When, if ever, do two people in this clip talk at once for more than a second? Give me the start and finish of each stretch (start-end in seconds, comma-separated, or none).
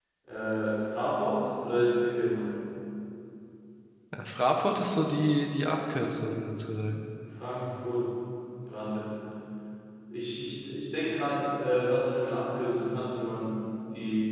none